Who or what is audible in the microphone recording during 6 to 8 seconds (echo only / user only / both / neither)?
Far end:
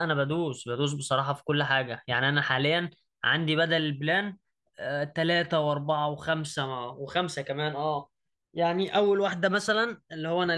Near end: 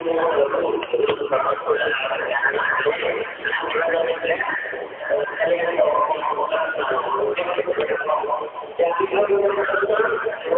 echo only